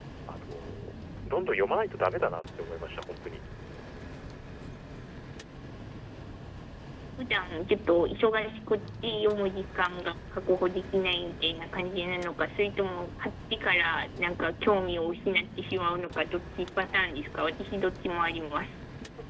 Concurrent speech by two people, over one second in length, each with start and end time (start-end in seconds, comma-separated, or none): none